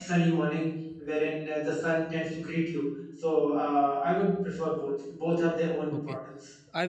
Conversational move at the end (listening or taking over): taking over